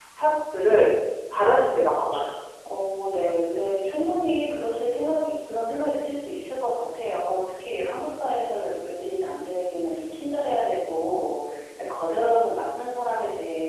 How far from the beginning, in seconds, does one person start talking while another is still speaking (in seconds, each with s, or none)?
none